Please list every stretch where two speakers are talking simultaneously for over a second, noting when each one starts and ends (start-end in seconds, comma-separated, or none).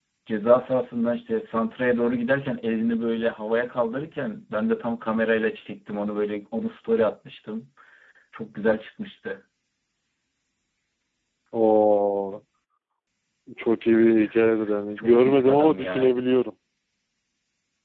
15.0-16.2